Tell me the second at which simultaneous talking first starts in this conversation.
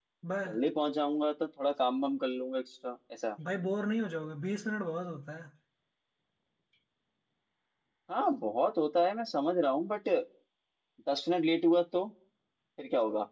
none

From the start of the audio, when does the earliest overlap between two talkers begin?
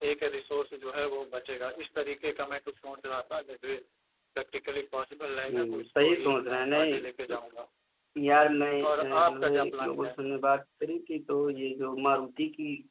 5.5 s

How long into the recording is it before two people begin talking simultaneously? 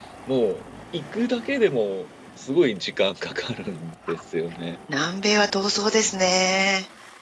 none

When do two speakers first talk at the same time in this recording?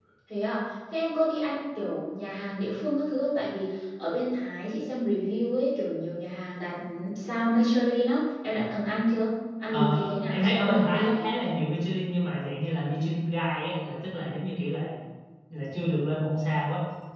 9.6 s

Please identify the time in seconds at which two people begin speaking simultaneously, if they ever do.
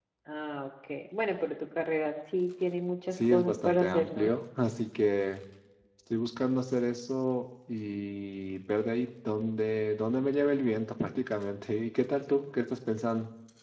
3.1 s

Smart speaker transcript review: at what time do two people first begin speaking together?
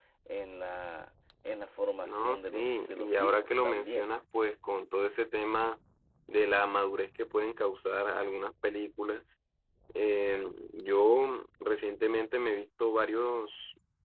2.0 s

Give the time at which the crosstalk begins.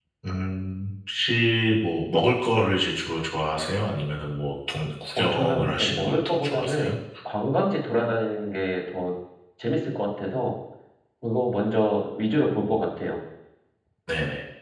5.2 s

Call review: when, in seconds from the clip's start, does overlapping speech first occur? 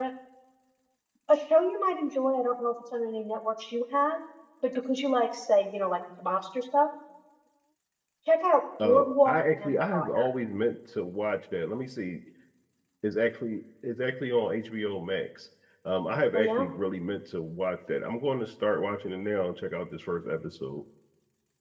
8.8 s

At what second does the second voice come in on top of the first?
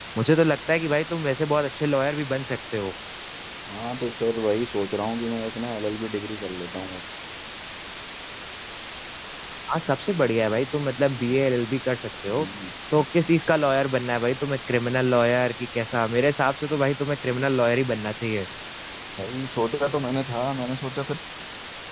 none

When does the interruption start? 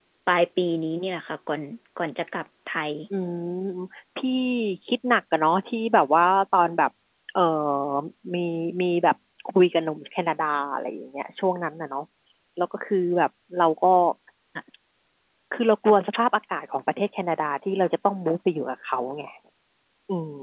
none

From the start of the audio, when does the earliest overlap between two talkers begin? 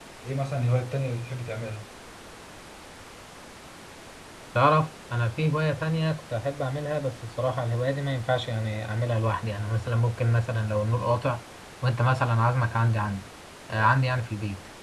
none

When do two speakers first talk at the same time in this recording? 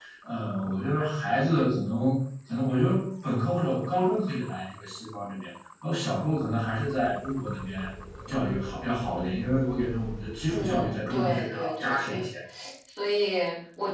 10.5 s

